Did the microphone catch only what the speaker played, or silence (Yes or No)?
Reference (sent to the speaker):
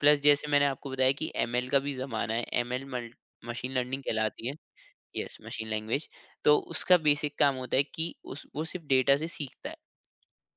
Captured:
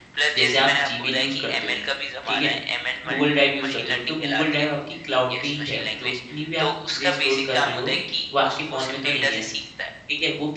No